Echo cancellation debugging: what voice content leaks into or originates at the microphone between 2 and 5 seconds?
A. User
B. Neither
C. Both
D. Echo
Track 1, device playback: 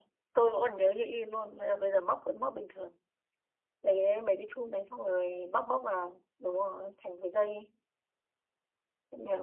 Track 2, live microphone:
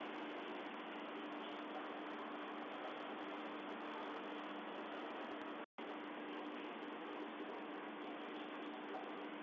B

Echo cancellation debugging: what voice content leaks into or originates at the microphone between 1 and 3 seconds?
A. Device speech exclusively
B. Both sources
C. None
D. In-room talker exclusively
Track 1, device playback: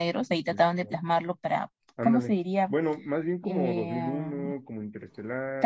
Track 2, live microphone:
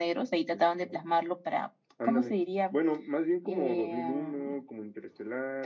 A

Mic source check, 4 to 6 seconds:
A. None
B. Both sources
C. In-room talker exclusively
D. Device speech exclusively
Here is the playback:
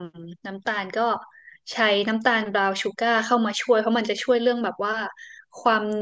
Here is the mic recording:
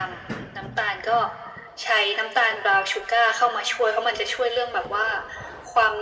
D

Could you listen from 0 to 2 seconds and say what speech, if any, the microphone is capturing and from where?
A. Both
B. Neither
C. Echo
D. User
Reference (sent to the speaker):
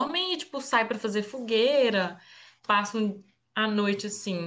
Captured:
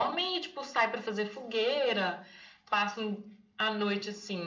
C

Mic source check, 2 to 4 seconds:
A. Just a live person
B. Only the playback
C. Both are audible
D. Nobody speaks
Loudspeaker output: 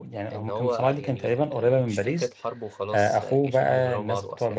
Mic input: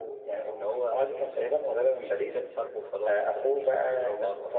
B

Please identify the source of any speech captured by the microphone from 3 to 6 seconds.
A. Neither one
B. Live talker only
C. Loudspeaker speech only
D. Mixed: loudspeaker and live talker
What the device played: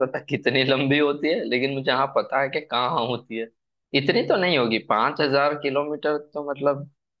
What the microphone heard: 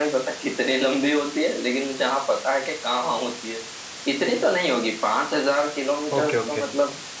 C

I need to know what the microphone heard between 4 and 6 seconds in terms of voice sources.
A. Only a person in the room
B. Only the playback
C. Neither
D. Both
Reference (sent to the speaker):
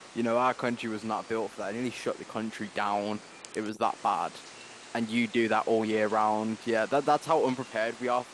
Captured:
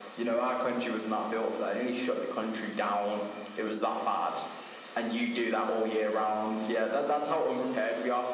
B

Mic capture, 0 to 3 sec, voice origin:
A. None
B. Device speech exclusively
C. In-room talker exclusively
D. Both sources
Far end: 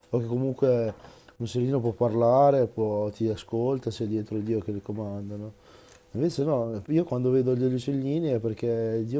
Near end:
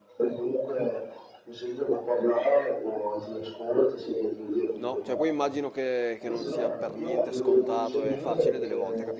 B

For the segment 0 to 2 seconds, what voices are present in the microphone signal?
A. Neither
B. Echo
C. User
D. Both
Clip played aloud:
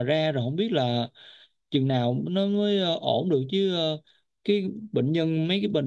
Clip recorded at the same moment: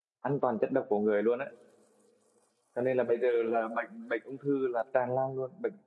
C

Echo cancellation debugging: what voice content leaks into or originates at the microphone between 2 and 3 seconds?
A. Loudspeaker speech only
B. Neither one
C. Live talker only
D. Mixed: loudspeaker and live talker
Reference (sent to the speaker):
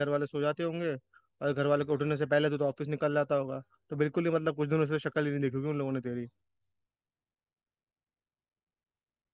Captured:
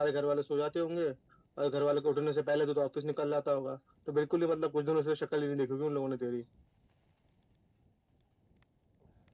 A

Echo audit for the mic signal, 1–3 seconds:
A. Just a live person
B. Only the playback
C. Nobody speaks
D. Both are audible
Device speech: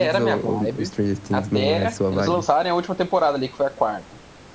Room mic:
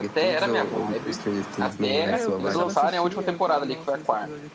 D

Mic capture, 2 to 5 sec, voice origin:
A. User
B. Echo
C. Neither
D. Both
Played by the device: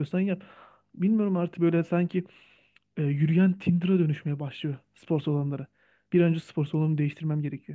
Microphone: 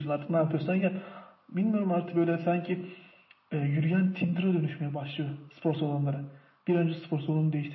B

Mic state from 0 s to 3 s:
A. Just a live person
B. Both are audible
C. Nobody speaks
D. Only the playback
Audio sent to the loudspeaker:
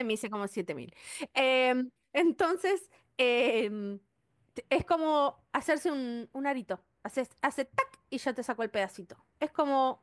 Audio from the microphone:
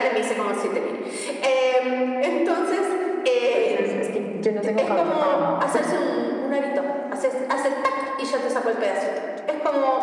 D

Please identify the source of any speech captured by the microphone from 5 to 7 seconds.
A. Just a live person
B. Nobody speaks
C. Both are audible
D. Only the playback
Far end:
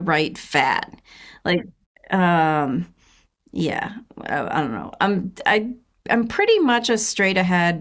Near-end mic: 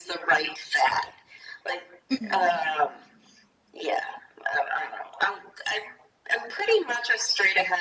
D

